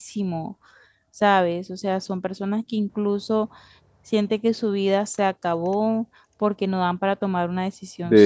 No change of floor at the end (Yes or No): No